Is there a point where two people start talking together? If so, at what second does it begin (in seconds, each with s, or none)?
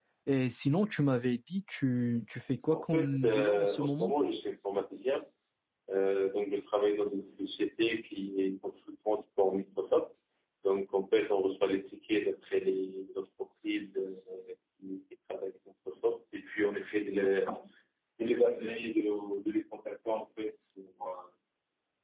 2.7 s